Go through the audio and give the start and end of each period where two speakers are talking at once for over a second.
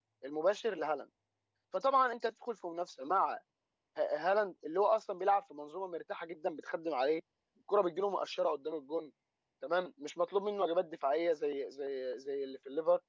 none

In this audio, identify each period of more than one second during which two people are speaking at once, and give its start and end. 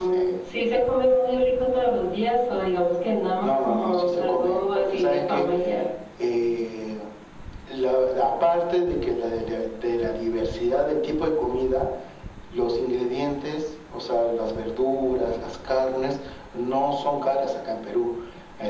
3.4-5.5

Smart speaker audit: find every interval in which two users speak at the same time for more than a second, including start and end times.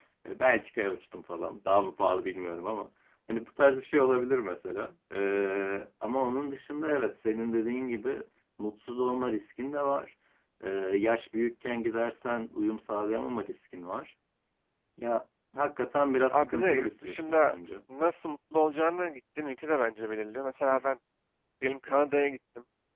16.3-17.6

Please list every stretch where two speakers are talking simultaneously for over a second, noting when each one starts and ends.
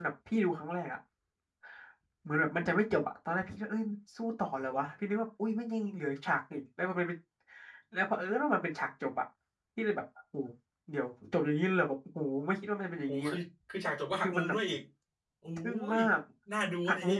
none

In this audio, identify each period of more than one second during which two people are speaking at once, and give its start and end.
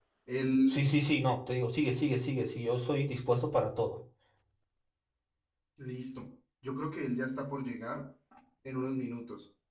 none

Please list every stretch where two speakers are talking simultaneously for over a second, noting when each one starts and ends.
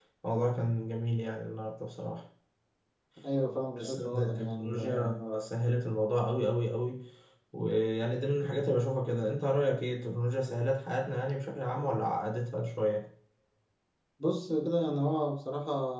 3.8-5.1

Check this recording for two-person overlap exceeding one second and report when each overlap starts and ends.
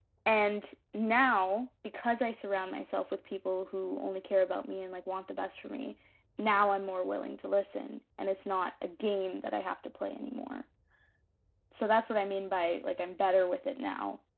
none

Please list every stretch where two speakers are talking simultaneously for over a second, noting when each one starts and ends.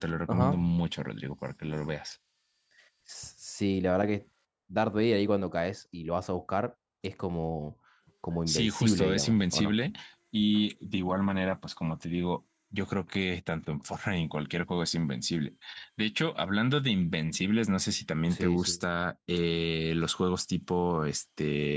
8.5-9.7

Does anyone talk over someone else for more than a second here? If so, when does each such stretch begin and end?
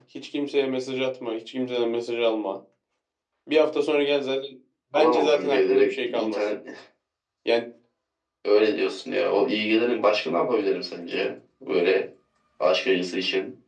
5.0-6.4

